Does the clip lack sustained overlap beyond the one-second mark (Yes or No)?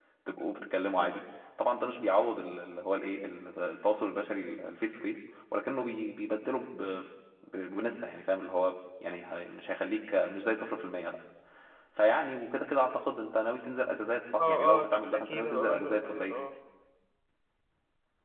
No